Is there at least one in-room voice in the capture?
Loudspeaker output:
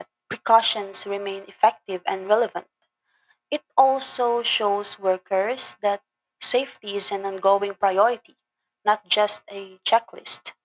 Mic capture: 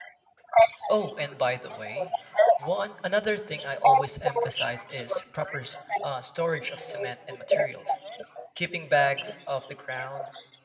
Yes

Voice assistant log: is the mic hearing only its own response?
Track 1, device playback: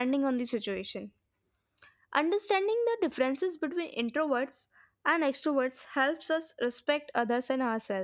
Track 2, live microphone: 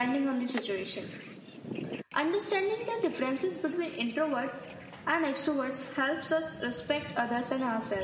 Yes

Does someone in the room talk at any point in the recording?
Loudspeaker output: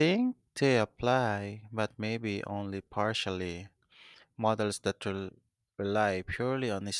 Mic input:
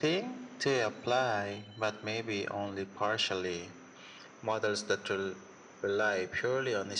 No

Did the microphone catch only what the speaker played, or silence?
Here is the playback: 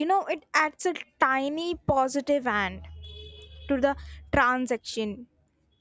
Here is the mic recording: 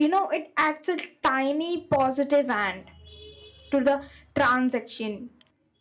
Yes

